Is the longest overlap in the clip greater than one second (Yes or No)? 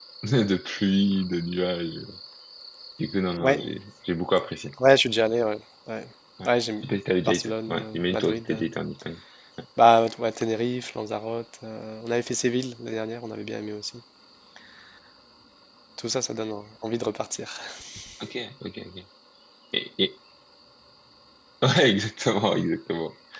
Yes